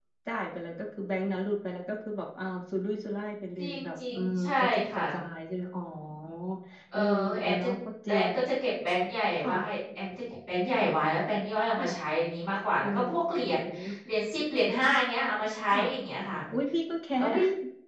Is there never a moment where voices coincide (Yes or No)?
No